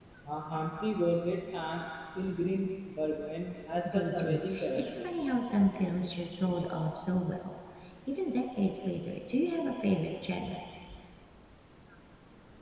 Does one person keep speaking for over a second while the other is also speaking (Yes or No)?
Yes